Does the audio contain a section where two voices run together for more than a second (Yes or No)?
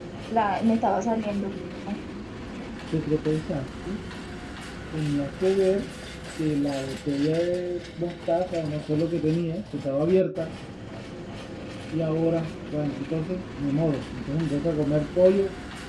No